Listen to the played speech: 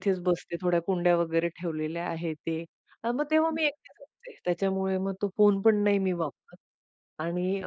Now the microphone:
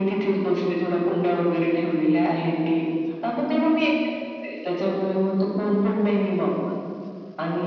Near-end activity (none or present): none